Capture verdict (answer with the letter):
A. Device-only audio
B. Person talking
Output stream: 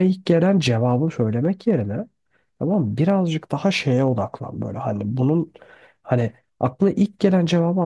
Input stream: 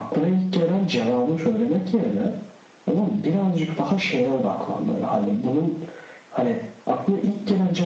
A